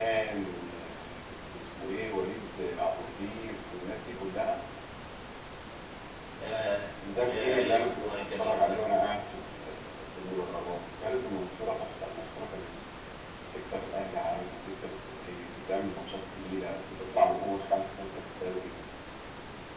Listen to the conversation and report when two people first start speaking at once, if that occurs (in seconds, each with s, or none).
7.3 s